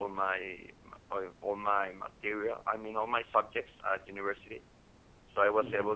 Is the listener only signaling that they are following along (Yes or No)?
Yes